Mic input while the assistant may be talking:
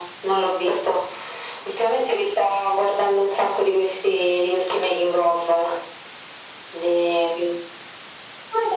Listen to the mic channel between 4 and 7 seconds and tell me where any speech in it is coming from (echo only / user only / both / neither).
echo only